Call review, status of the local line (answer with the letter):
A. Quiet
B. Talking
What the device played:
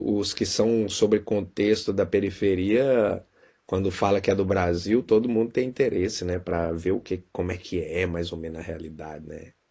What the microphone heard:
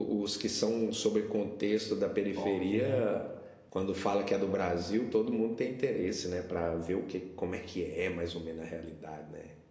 B